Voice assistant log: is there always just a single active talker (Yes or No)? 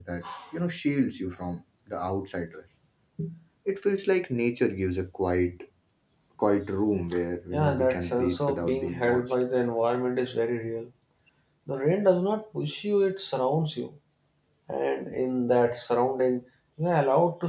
No